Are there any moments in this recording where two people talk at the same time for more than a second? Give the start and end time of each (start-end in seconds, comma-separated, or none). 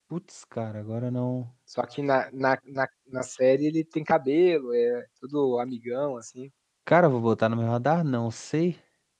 none